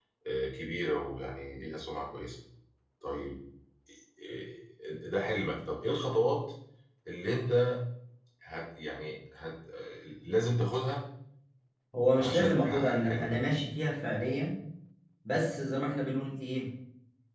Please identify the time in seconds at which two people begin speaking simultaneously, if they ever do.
12 s

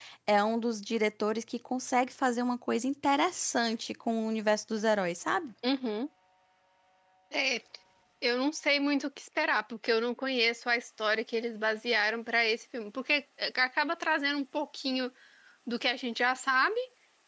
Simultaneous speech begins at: none

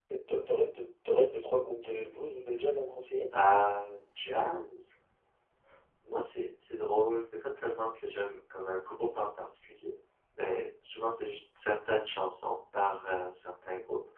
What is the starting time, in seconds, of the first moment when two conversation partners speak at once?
none

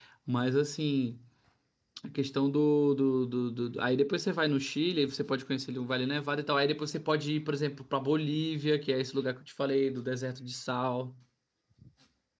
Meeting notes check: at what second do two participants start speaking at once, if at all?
none

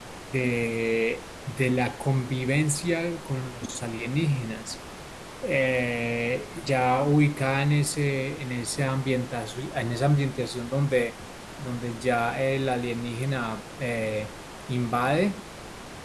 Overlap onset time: none

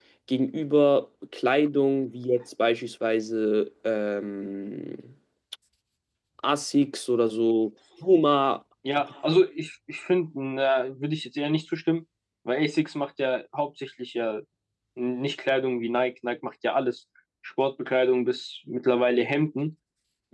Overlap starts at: none

